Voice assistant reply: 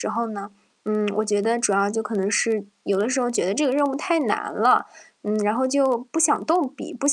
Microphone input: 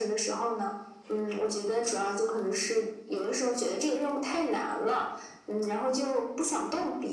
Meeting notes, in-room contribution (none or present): none